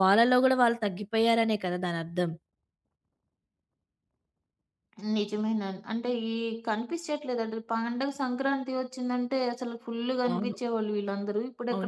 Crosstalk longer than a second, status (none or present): none